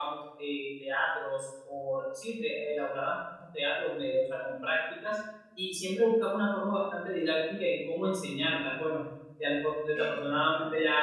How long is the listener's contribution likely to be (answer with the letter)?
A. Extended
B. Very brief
B